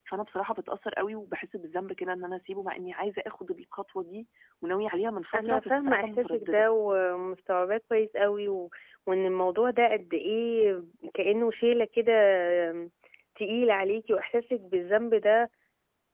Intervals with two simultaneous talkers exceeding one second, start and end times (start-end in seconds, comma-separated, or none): 5.3-6.7